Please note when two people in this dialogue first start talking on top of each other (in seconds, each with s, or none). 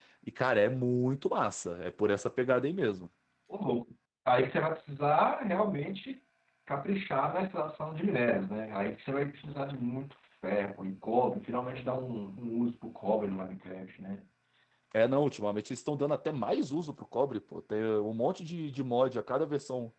none